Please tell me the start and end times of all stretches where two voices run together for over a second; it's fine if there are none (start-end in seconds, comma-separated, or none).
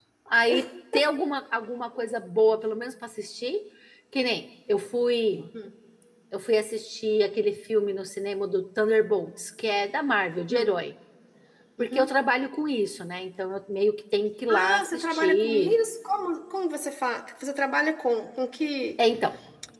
14.5-15.8